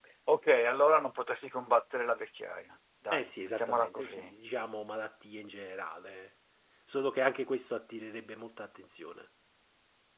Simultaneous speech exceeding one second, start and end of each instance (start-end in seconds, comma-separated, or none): 3.1-4.3